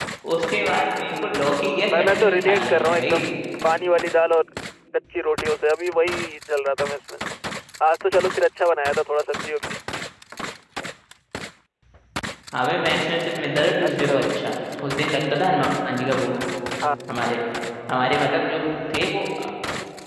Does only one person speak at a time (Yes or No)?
No